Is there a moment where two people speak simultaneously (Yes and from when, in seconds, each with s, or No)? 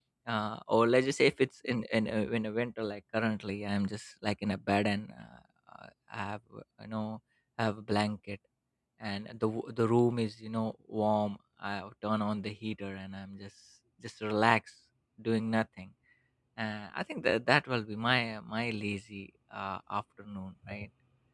No